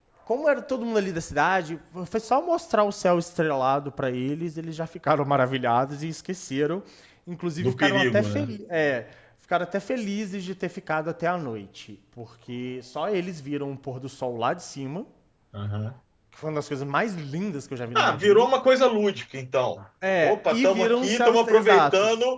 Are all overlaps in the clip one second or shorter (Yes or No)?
No